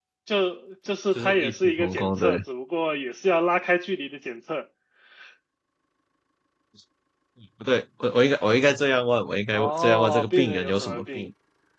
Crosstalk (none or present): present